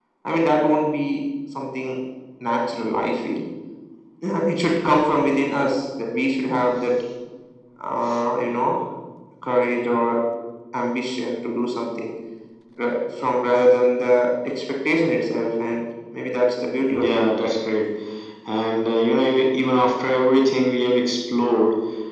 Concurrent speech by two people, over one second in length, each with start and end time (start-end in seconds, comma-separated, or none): none